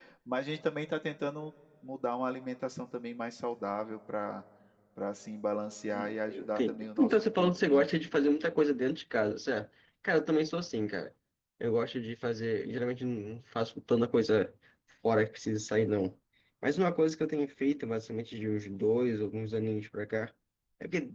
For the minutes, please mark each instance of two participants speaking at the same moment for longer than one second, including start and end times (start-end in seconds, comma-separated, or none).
5.9-7.9